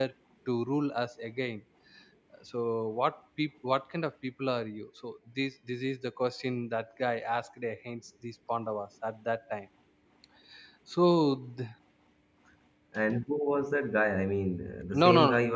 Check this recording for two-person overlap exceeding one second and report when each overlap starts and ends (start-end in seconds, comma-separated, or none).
none